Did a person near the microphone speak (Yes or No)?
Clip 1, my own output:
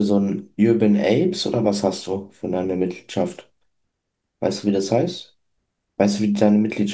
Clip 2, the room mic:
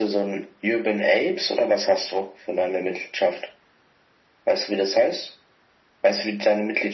No